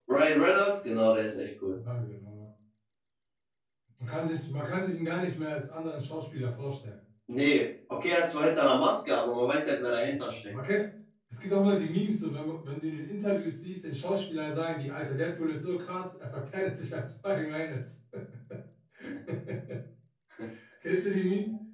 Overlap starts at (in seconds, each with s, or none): none